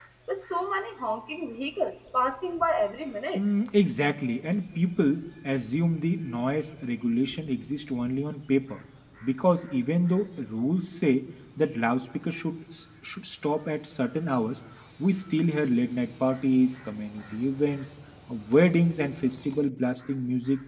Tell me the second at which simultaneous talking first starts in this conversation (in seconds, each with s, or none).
none